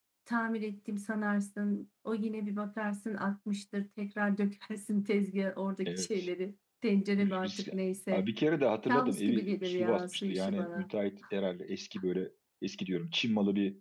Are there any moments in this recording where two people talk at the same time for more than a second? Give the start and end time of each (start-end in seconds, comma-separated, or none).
8.9-10.9